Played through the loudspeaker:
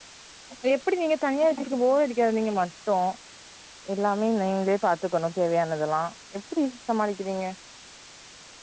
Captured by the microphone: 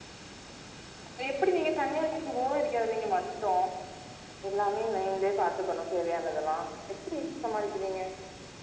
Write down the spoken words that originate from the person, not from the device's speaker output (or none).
none